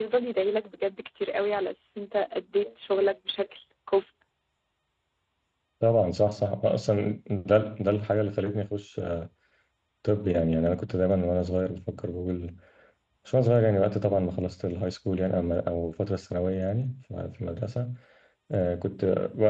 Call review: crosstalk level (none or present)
none